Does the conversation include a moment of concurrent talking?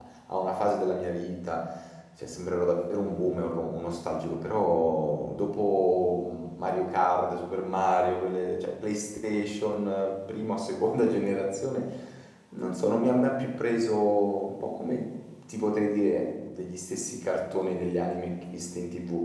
No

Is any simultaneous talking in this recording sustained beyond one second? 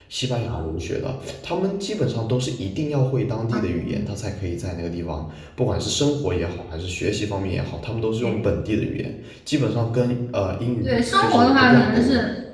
Yes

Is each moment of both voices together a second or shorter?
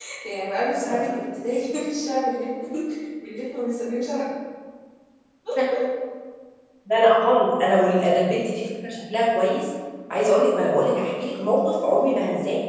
Yes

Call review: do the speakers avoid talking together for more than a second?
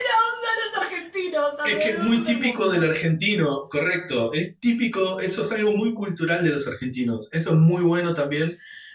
No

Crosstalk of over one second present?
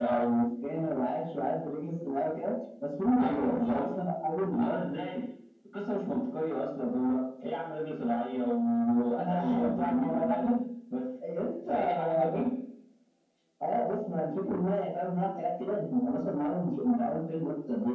Yes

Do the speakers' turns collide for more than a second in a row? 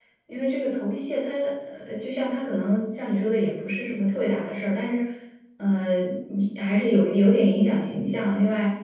No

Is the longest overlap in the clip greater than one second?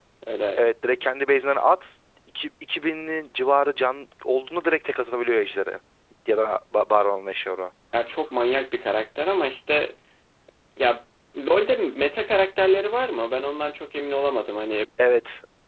No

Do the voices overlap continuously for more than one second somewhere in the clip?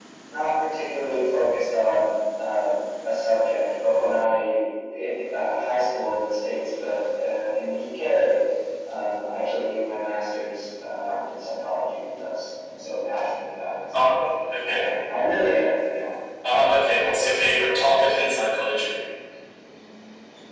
No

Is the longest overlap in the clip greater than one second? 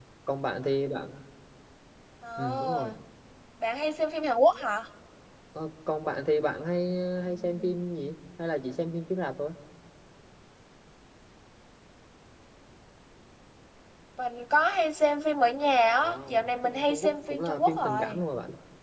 Yes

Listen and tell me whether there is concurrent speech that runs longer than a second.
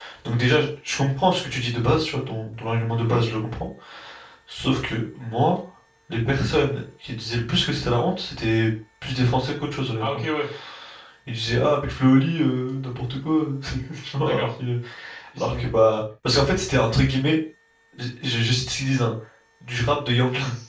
No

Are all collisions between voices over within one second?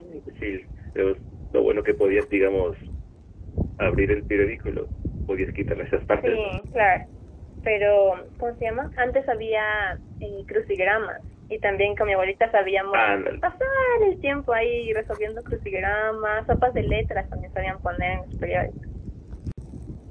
Yes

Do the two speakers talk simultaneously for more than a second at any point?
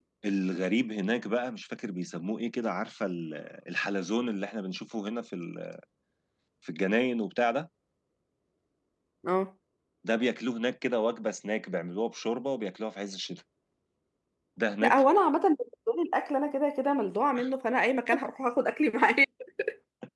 No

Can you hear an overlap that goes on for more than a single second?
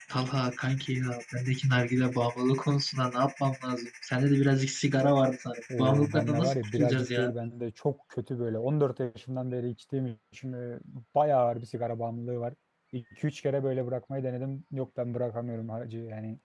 Yes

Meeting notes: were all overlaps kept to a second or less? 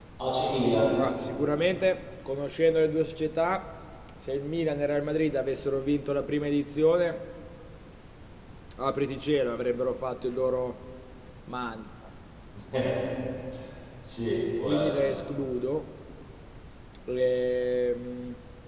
Yes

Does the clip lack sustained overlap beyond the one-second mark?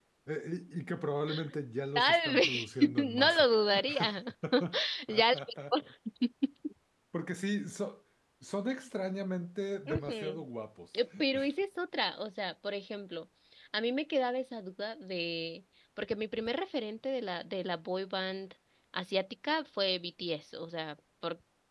No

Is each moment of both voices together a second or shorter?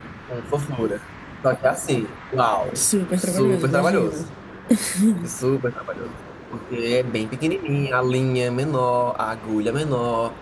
No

